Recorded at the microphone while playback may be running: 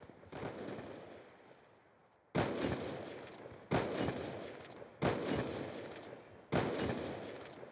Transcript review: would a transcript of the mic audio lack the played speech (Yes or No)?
Yes